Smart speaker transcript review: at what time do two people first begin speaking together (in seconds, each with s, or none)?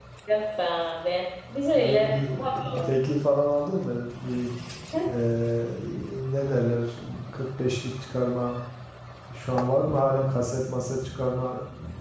1.7 s